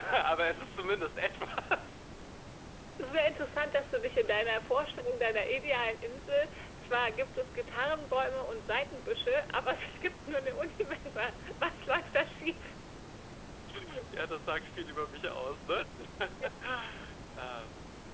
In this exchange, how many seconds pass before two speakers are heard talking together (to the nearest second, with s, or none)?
none